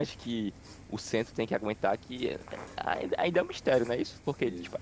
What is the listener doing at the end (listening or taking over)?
listening